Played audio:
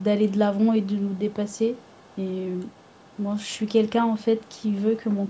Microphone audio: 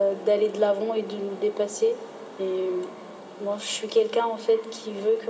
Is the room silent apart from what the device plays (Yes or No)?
Yes